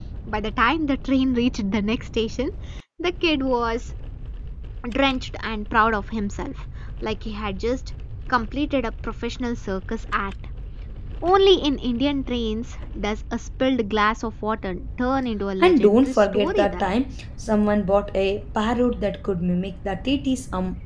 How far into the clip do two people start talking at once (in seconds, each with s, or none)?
15.6 s